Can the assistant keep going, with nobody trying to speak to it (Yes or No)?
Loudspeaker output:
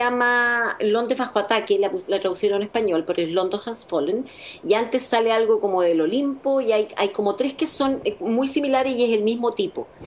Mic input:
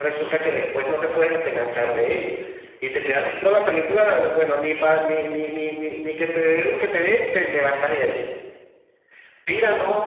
No